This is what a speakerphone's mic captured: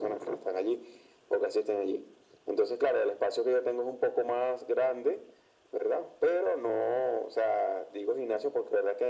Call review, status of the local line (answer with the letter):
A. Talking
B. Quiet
B